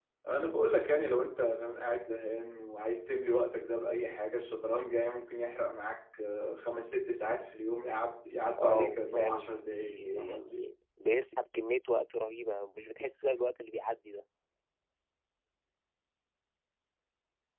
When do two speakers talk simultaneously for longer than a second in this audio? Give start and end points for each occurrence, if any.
8.6-10.6

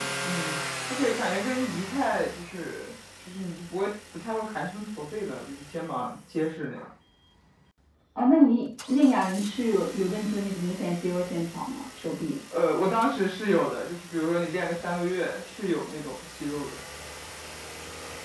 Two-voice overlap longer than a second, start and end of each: none

